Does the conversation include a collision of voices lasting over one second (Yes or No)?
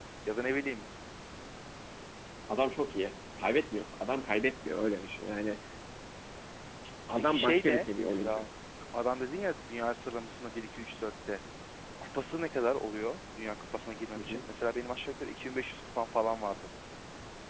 Yes